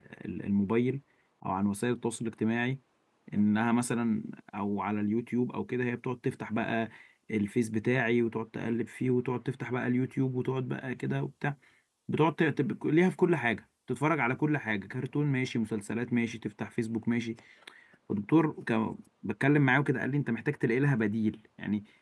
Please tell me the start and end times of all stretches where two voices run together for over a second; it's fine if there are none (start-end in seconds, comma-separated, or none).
none